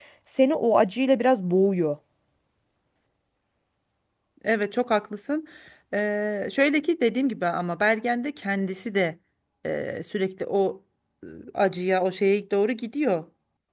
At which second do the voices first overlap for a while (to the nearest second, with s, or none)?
none